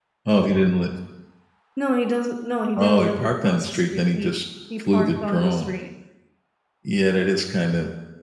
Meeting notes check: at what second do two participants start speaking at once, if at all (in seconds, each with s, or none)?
2.8 s